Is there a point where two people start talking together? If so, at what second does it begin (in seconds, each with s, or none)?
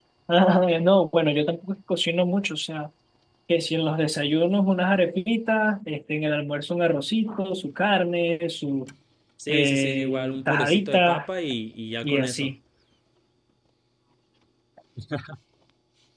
9.5 s